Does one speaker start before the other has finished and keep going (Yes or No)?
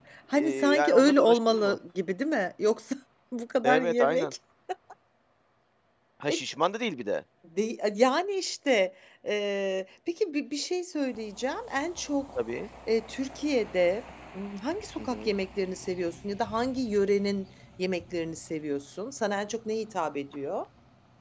Yes